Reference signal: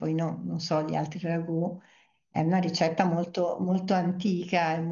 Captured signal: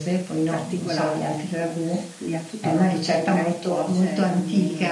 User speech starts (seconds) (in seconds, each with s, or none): 0.4 s